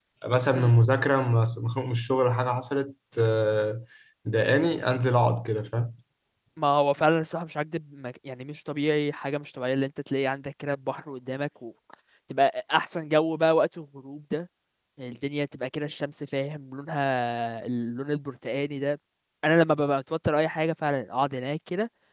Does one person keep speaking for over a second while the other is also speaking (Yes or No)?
No